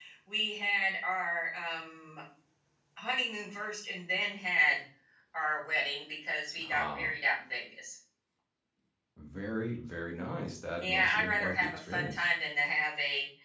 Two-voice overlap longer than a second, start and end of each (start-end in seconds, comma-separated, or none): 10.8-12.3